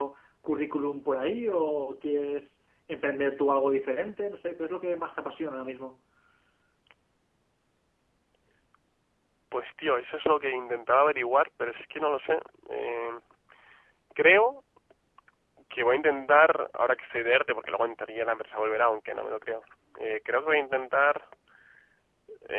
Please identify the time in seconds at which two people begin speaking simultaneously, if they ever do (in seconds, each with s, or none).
none